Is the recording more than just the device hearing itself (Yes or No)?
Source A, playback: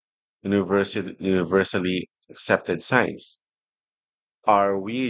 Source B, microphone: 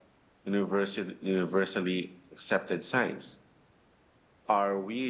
No